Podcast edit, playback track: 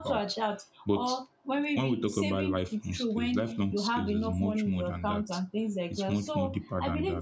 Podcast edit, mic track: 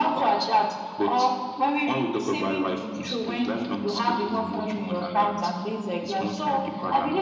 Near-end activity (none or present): none